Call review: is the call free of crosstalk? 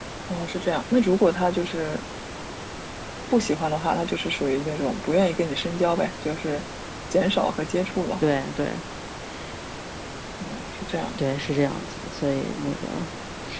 Yes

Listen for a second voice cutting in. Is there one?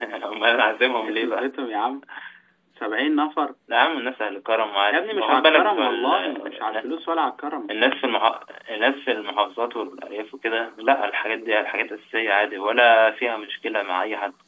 Yes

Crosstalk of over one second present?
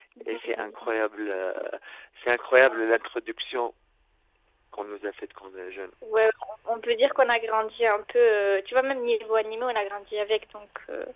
No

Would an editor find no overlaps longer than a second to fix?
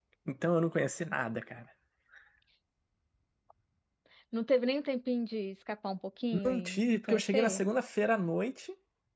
No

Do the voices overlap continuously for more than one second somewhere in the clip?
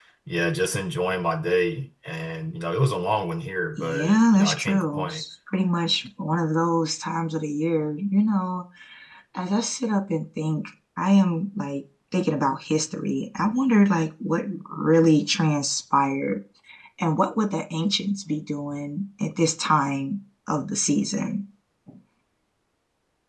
Yes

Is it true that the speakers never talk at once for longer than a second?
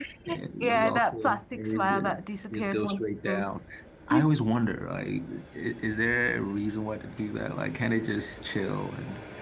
No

